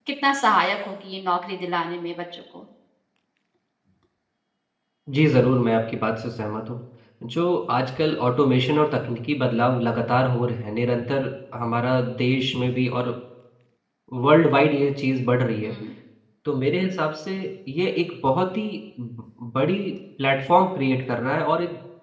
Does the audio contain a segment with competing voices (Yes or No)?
No